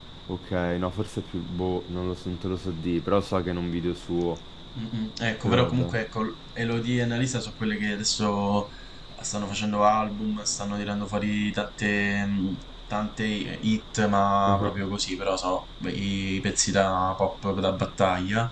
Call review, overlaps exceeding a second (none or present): none